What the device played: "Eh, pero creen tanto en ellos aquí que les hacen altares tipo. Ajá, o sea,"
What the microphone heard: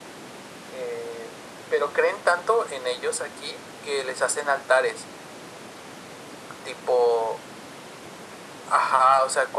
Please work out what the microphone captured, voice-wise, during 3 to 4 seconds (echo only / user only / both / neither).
echo only